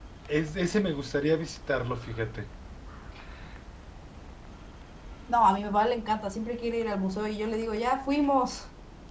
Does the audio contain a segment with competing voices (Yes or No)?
No